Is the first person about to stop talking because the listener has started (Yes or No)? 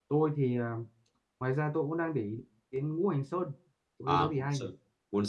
Yes